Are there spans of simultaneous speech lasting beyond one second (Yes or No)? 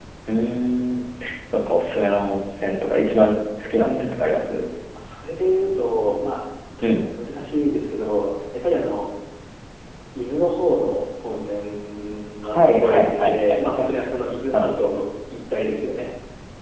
Yes